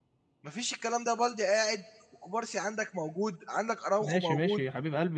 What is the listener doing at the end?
taking over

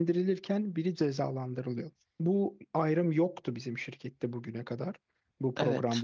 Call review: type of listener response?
taking over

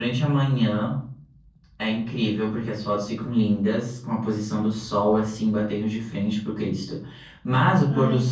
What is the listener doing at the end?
listening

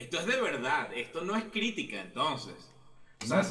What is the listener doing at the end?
taking over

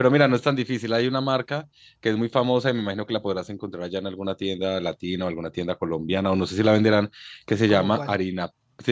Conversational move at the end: listening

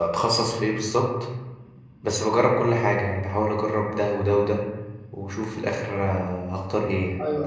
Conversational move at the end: taking over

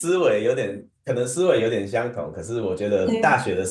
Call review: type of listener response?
listening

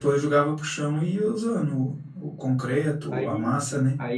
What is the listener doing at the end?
taking over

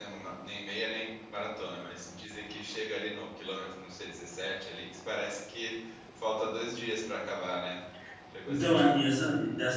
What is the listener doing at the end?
taking over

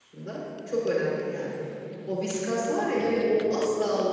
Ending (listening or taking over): listening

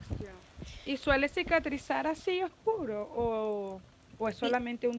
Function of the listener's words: listening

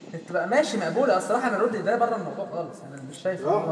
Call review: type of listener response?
taking over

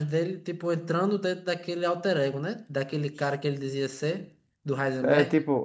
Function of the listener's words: taking over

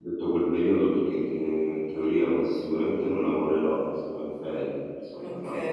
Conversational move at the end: taking over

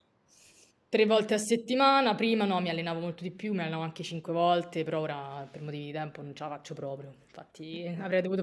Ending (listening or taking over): listening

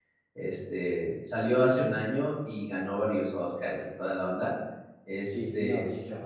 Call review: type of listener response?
taking over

